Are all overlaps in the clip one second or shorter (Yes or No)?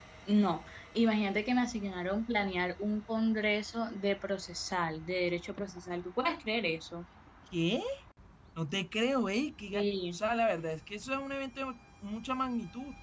Yes